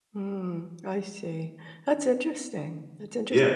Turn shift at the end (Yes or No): Yes